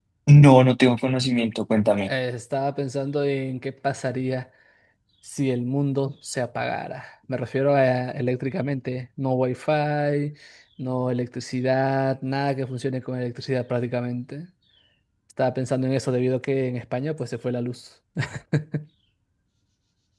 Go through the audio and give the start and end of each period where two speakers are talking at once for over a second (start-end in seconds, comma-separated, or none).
none